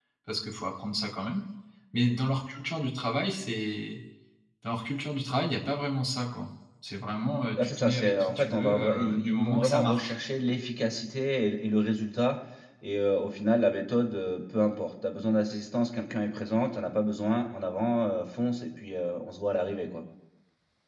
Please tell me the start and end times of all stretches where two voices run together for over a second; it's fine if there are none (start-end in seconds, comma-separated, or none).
7.6-10.1